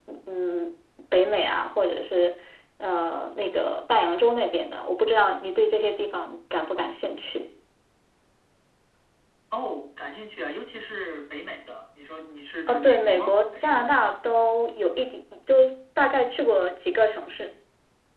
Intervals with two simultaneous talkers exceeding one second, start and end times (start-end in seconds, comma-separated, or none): 12.7-13.9